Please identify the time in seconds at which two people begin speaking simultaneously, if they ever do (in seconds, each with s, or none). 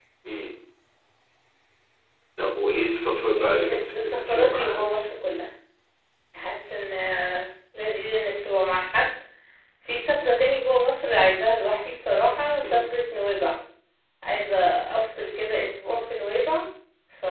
3.4 s